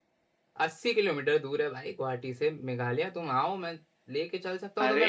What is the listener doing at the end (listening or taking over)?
listening